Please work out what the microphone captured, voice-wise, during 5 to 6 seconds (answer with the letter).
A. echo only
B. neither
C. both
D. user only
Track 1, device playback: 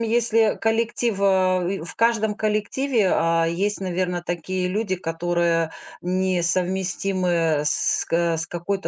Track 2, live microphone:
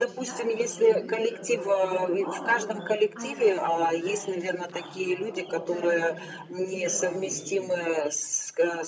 C